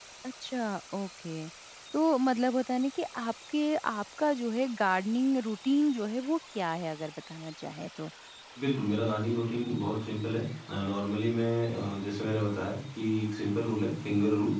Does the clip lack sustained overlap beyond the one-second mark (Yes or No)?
Yes